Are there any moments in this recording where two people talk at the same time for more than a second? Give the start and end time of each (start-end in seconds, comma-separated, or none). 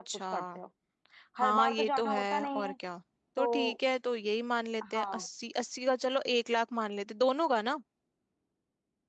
1.4-2.7